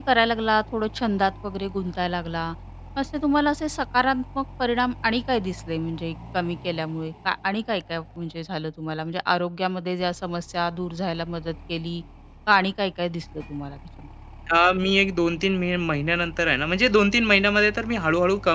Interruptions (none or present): none